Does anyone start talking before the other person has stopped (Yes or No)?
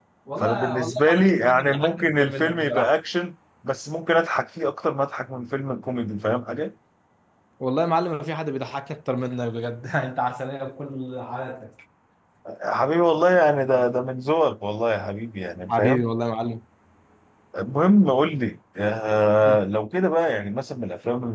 Yes